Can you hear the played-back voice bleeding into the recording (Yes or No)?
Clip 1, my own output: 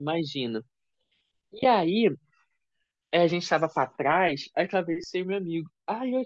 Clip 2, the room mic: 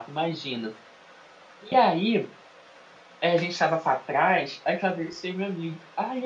Yes